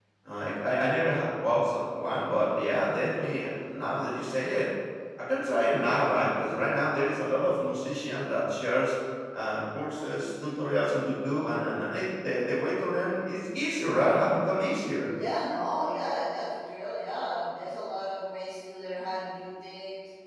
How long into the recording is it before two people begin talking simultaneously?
none

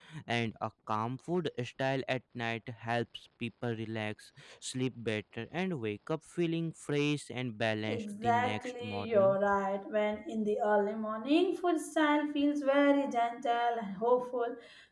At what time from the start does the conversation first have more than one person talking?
8 s

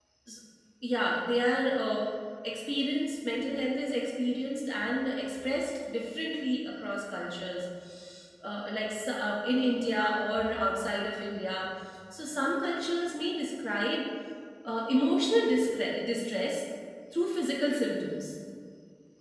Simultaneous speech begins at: none

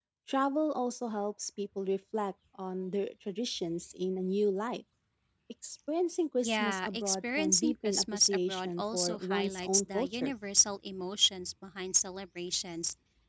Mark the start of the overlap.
6 s

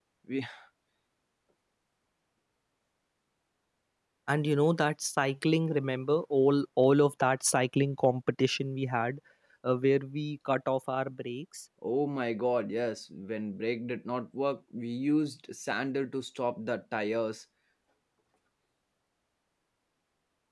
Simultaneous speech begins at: none

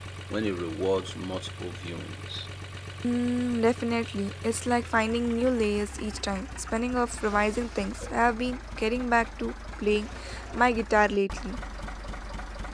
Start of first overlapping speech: none

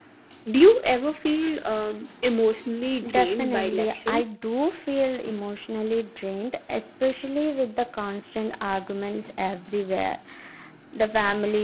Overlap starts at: 3 s

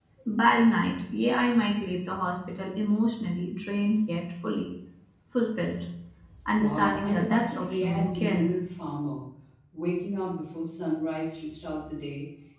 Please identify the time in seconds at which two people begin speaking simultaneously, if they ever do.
7 s

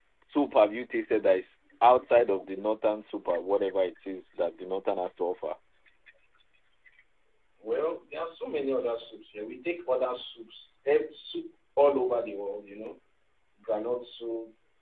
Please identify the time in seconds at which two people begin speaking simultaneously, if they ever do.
none

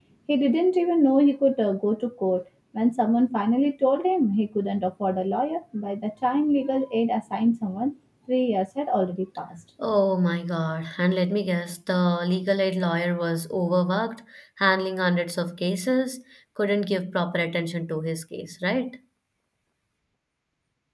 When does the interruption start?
none

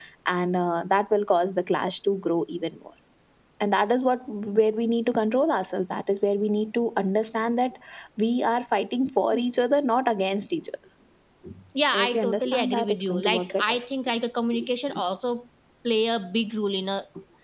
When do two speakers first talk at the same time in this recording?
12 s

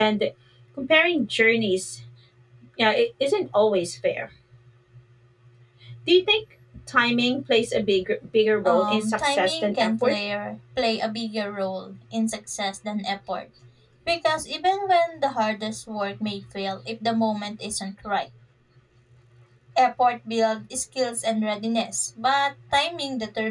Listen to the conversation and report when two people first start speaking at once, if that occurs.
9 s

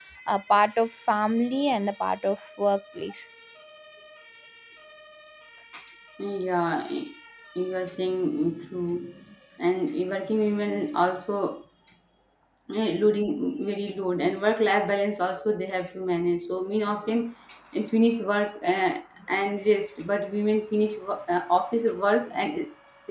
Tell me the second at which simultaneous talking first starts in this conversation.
none

